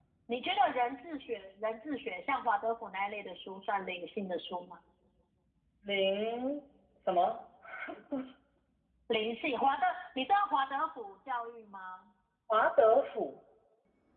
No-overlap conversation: Yes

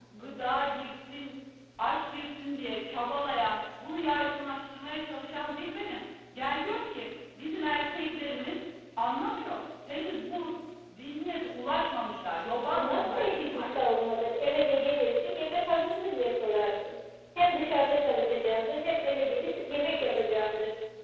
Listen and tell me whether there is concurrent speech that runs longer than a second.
Yes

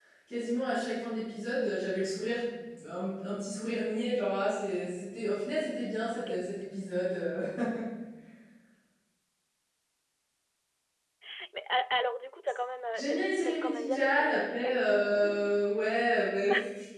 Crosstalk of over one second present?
Yes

